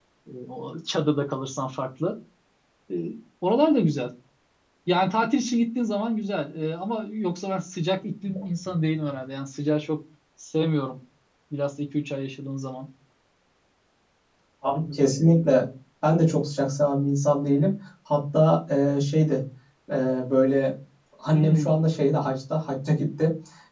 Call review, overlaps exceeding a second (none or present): none